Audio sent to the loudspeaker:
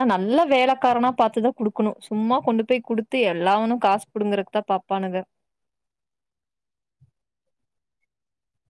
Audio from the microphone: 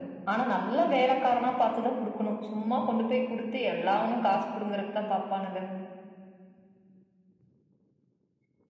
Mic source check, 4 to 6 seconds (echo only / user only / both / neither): echo only